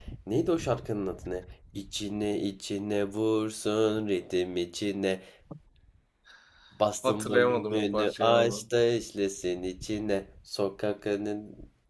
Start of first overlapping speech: 7 s

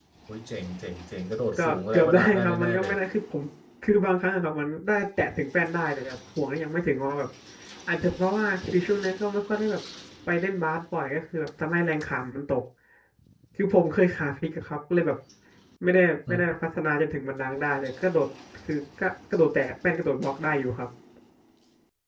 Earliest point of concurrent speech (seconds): 2 s

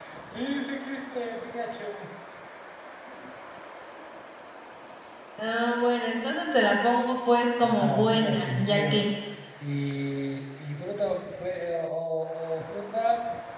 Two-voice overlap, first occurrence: 8 s

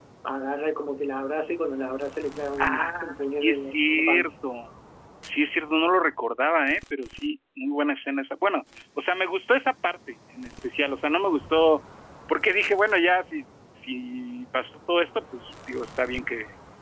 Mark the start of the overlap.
3 s

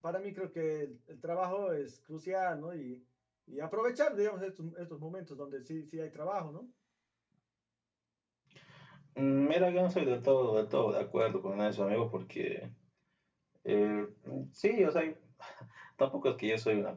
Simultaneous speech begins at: none

